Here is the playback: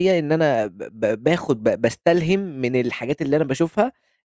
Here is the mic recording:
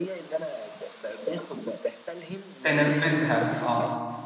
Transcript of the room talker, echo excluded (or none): تنفّذها آه،